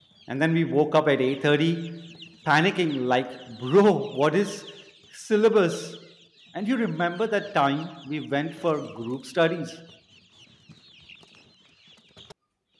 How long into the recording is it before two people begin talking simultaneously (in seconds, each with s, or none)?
none